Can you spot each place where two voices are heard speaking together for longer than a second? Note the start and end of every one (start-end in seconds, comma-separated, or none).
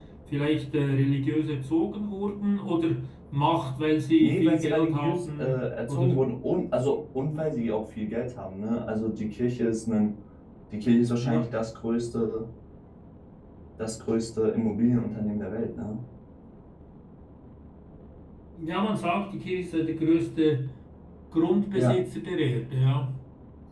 4.2-6.2